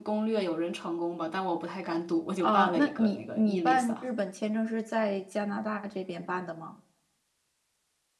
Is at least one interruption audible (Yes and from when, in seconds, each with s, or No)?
Yes, from 2.4 s